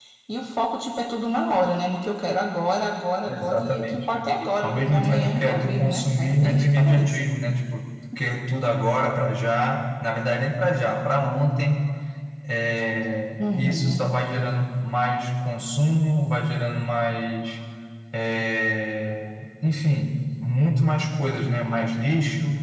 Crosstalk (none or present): present